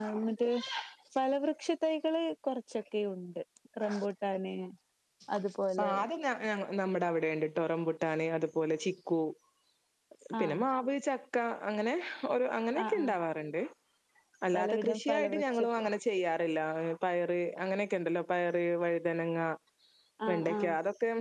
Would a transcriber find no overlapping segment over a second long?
No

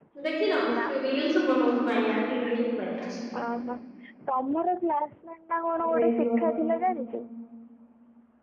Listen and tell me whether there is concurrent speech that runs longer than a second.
No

